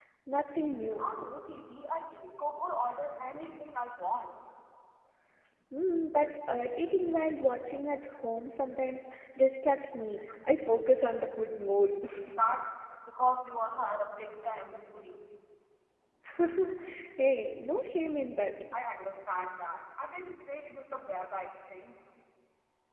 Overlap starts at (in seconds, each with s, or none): none